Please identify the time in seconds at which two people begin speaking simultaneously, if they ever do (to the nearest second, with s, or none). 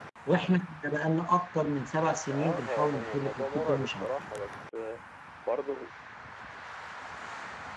2 s